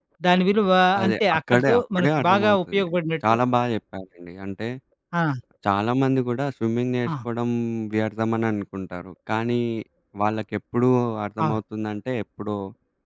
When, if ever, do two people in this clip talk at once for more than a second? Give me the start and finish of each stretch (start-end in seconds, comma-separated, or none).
1.0-2.8